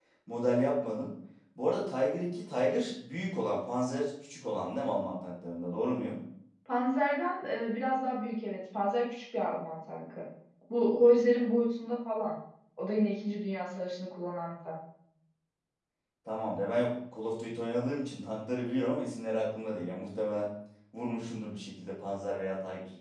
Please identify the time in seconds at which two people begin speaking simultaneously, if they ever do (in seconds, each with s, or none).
none